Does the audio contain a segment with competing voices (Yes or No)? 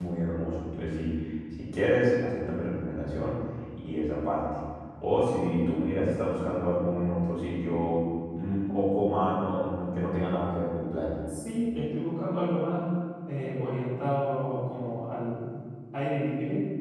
No